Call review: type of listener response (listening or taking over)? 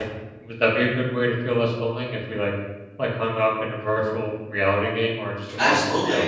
taking over